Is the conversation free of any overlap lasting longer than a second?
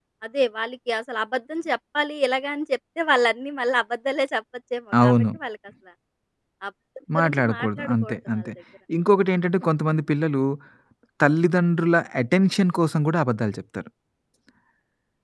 No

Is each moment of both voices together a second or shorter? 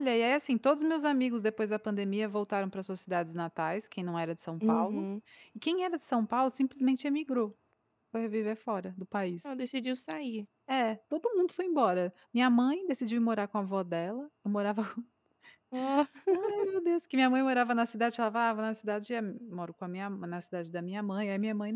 Yes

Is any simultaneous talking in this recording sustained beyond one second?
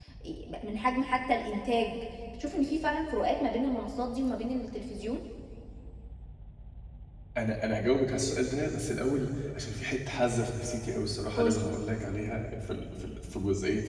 No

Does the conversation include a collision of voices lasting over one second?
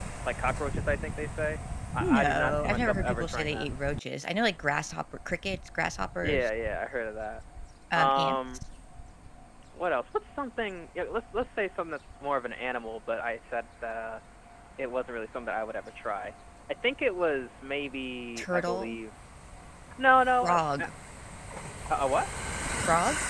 Yes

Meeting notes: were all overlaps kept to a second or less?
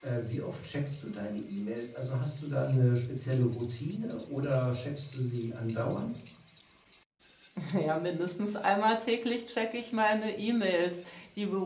Yes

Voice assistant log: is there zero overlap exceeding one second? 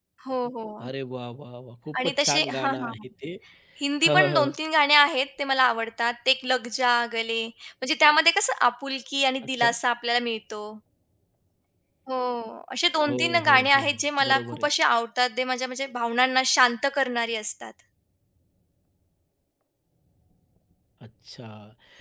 No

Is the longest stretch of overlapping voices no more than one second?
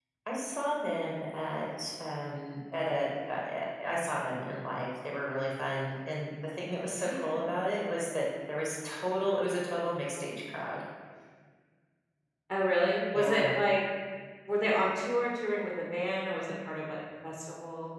Yes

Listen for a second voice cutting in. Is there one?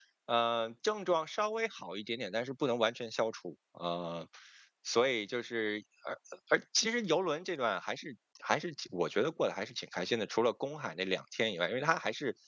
No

